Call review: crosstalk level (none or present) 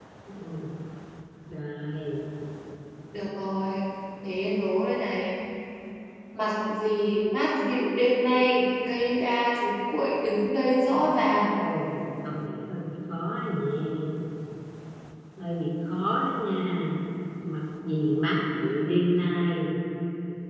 none